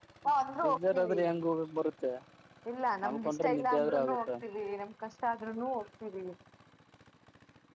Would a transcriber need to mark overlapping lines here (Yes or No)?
Yes